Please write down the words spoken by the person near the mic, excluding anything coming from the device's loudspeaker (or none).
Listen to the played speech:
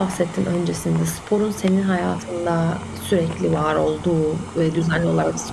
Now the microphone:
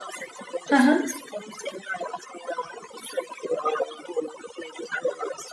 Hı hı.